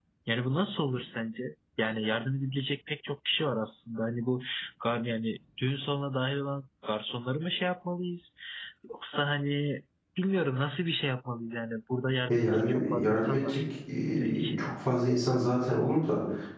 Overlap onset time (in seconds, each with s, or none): 12.3 s